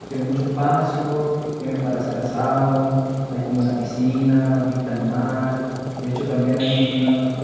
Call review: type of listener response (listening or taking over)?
taking over